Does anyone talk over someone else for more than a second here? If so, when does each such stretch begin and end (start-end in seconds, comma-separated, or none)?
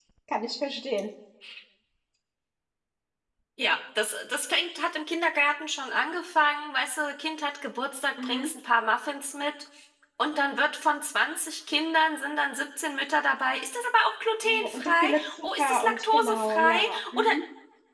14.4-17.3